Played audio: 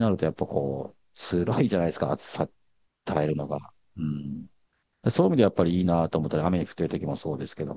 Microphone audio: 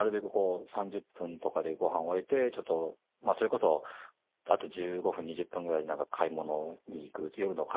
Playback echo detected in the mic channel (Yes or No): No